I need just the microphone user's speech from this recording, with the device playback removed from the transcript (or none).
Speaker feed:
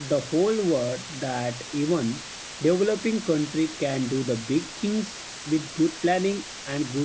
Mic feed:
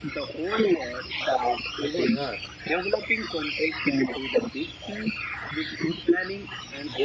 uh, they are.